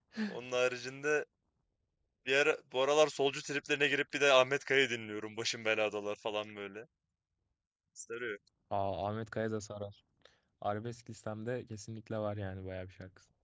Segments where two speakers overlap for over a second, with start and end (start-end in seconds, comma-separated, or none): none